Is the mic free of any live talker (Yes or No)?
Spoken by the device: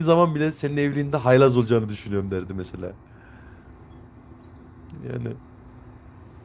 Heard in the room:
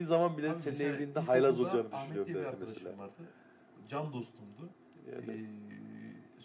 No